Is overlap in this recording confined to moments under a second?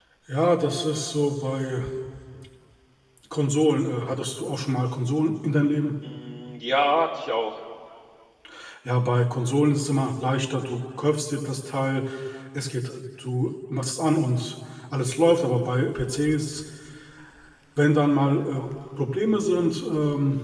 Yes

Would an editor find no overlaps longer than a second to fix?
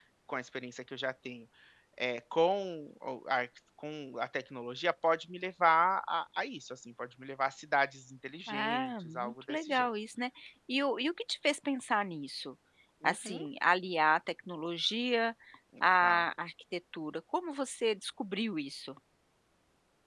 No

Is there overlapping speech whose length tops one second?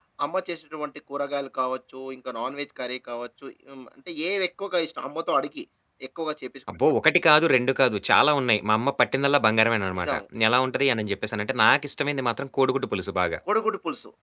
No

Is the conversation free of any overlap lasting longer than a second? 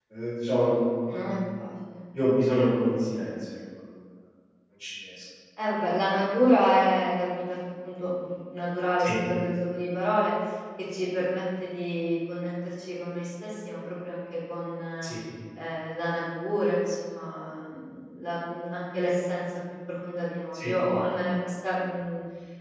Yes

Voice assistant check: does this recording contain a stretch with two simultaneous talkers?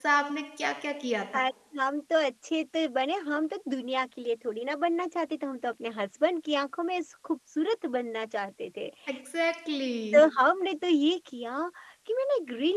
No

